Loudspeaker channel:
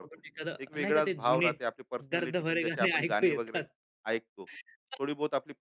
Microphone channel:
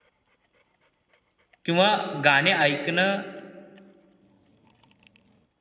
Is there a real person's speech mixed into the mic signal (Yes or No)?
Yes